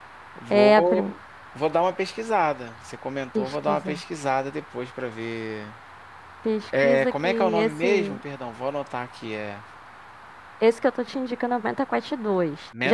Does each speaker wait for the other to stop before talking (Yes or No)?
No